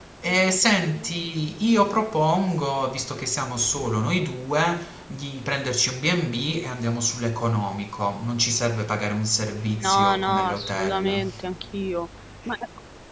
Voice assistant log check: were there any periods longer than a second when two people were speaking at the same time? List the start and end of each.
9.8-11.2

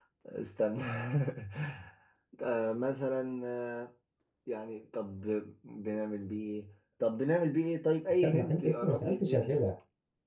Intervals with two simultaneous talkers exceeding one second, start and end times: 8.2-9.6

